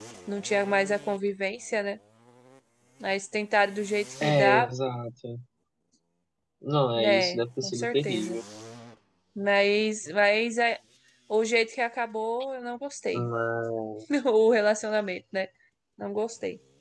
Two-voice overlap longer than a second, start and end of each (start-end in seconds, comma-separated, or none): 7.0-8.4